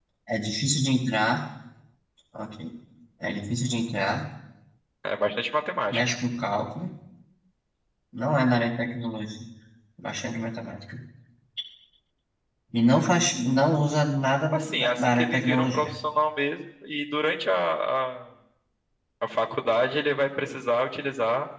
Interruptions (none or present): present